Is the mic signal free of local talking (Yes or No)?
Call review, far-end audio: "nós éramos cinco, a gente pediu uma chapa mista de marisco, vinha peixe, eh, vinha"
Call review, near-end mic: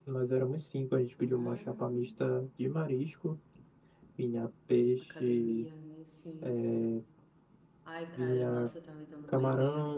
No